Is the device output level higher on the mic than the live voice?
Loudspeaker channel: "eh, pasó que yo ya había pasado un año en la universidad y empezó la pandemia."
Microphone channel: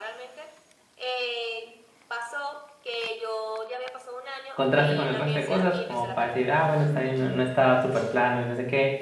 No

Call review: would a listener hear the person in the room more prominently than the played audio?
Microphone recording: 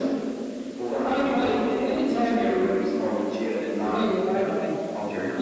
No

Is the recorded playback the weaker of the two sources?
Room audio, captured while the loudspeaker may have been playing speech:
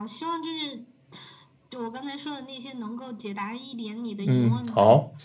Yes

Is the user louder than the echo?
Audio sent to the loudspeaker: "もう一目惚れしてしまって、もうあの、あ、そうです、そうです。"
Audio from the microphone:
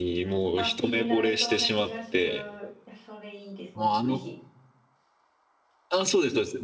No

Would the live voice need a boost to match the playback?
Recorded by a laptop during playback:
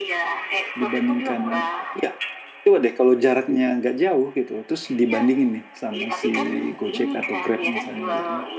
No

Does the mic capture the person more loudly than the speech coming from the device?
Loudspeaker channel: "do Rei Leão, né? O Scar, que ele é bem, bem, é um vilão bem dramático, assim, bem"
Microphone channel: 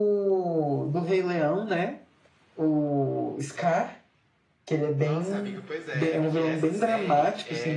No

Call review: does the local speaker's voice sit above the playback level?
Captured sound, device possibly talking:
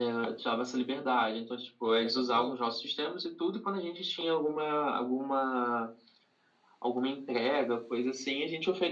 No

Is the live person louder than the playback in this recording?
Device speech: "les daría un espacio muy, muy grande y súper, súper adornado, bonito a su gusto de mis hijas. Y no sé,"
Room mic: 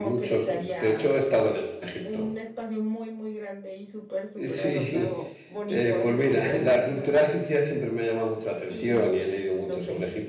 Yes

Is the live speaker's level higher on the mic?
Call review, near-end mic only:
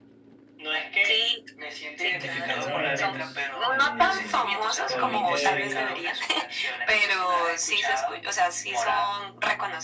No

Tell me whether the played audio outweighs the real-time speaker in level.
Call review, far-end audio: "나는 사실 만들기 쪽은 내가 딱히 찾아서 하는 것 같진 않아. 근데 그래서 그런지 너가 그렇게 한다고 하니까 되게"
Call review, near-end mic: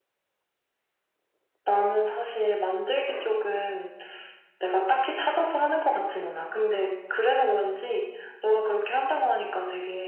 Yes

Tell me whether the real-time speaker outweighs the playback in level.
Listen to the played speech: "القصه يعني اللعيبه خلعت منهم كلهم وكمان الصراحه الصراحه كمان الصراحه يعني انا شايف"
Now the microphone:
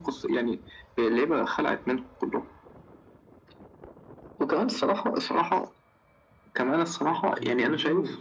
No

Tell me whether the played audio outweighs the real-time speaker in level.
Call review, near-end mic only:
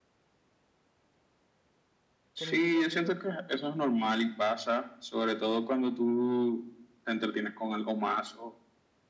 Yes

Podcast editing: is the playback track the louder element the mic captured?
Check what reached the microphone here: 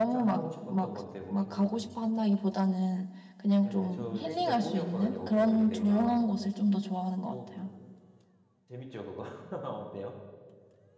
Yes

